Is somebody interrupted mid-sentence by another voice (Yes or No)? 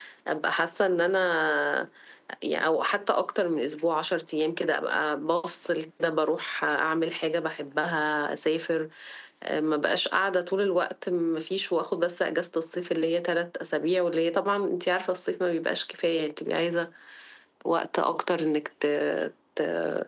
No